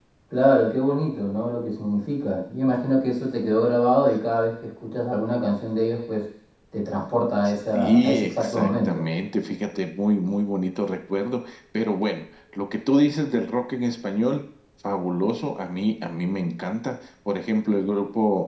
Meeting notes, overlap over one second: present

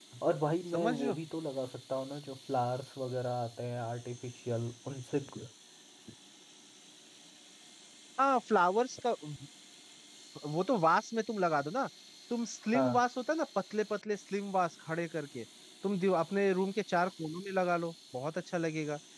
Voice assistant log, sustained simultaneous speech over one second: none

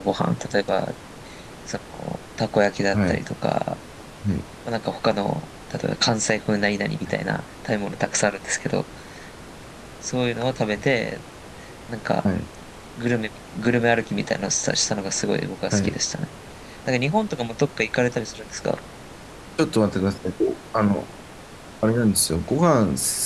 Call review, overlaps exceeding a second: none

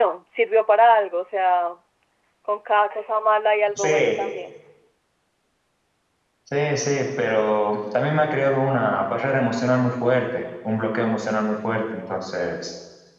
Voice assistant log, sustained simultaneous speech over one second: none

